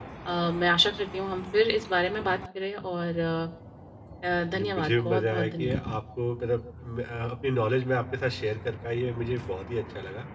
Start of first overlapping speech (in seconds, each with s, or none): 4.5 s